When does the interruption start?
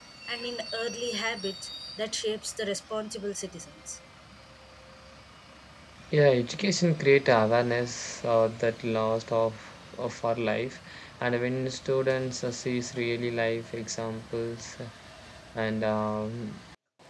none

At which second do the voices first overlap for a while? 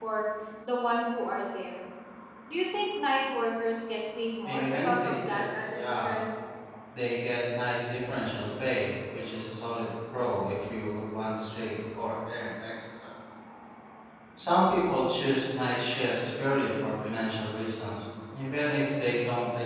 4.4 s

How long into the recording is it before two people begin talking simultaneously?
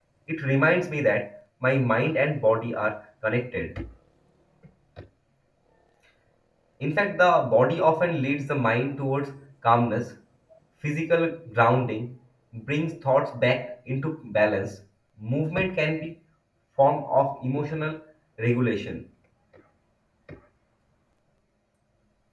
none

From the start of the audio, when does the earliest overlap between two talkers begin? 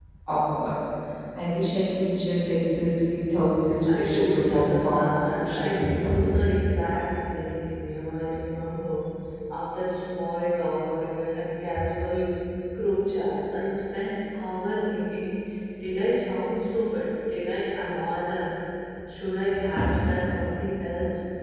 3.8 s

